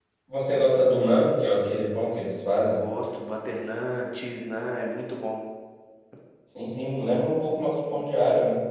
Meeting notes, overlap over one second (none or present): none